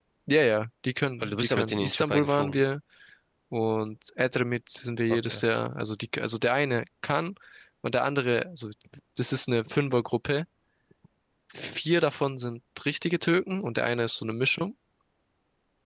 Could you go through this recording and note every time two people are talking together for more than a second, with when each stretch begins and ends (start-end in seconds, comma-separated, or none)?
1.2-2.6